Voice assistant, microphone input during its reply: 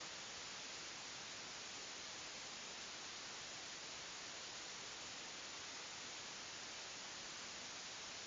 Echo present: No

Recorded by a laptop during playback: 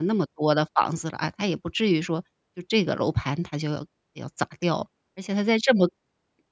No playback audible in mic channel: Yes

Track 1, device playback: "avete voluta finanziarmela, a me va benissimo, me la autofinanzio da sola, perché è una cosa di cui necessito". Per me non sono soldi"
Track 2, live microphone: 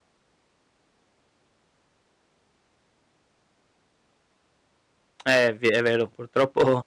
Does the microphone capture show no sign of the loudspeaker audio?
Yes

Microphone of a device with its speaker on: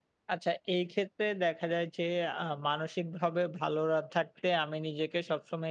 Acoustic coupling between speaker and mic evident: No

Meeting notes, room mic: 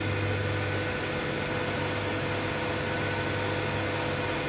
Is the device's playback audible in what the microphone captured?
No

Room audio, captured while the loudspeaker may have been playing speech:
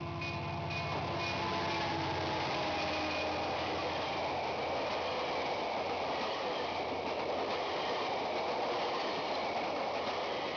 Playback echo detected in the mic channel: No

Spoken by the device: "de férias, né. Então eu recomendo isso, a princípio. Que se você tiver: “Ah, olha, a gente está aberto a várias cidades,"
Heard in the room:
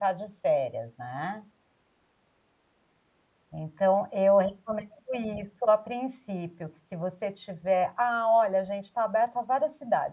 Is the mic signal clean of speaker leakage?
No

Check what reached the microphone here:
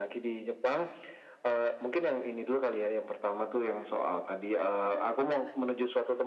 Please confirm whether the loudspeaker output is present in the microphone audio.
Yes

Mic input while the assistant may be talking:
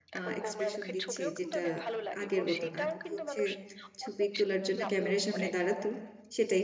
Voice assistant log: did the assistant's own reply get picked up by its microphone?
Yes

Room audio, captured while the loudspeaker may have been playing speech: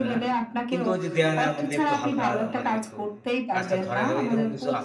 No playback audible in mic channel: No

